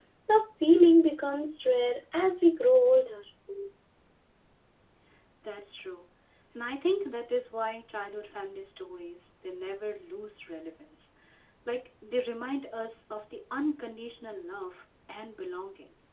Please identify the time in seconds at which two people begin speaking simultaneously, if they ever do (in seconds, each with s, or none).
none